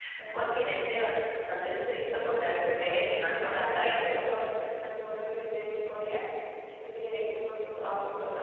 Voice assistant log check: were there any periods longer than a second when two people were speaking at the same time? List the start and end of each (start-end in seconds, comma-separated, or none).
2.4-4.3